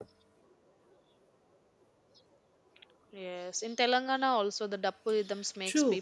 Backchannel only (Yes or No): No